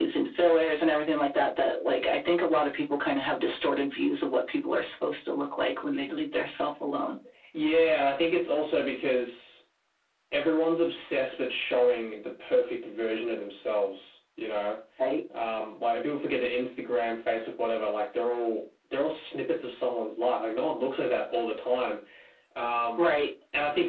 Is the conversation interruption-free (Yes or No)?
Yes